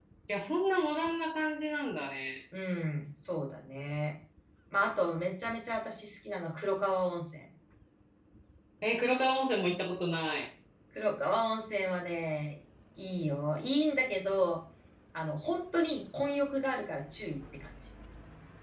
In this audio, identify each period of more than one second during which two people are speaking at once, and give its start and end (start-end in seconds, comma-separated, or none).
none